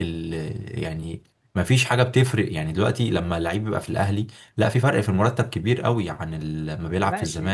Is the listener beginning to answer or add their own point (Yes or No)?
Yes